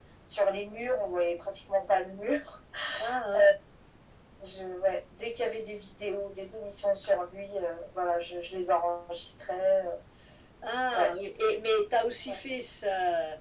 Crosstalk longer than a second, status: none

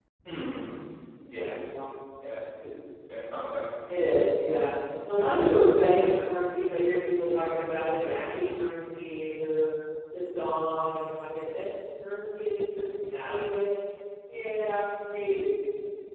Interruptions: none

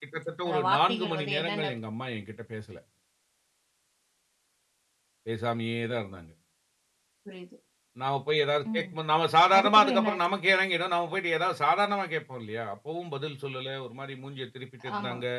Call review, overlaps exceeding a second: present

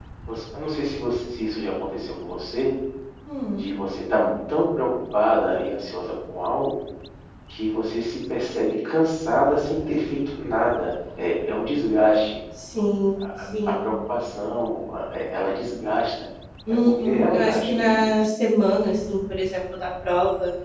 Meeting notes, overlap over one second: present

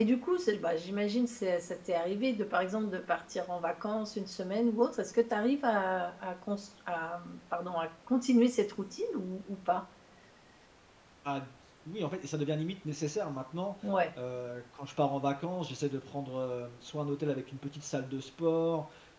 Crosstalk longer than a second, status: none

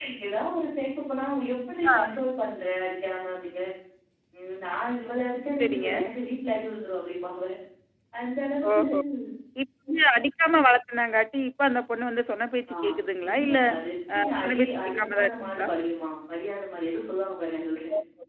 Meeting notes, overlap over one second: present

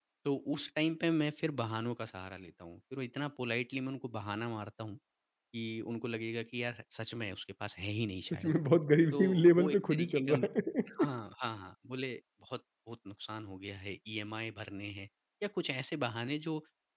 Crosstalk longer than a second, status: present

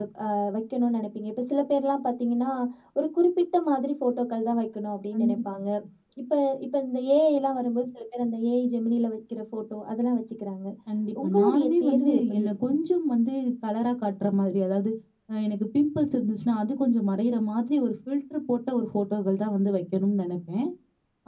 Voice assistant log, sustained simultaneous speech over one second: present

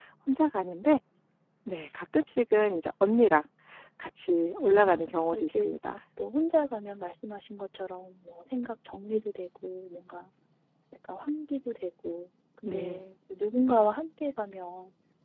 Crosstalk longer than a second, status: none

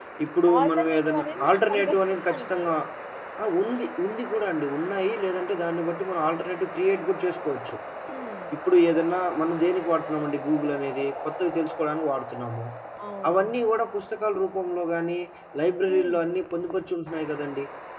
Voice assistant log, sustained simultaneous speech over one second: present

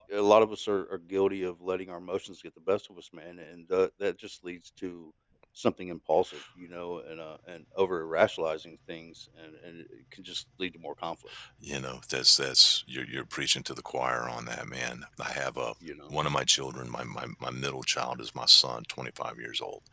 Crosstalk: none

